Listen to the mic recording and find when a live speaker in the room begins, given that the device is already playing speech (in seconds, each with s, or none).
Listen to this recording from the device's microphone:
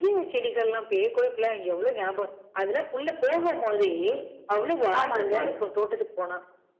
5.0 s